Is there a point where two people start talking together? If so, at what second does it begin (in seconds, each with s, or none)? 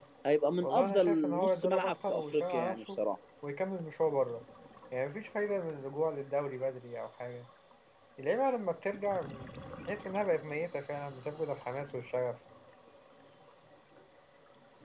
0.6 s